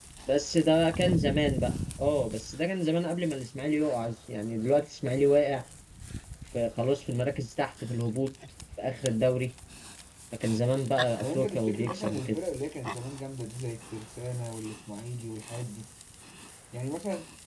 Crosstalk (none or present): present